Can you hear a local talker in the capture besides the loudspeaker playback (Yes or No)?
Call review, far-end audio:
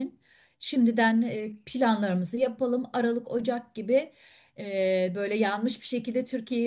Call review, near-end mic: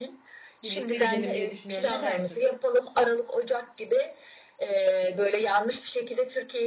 Yes